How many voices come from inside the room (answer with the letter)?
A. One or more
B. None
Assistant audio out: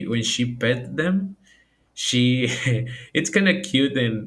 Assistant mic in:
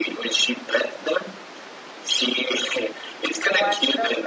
A